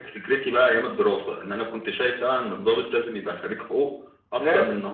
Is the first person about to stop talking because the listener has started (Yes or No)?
No